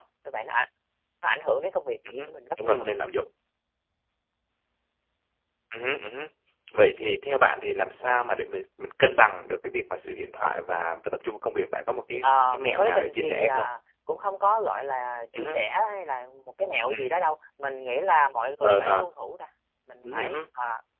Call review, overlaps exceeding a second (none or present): present